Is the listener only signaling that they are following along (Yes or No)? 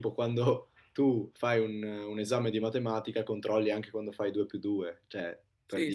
No